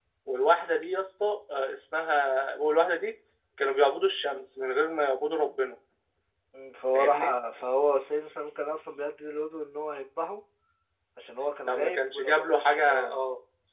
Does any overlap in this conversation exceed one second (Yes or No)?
Yes